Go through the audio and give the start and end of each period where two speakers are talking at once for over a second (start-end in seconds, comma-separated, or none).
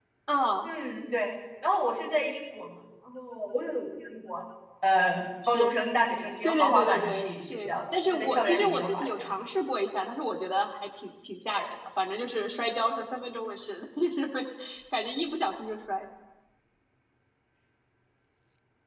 6.4-9.3